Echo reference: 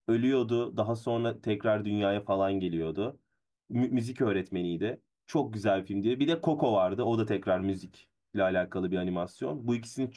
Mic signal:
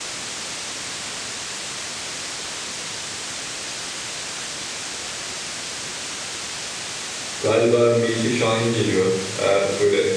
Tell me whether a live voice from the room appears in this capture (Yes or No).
Yes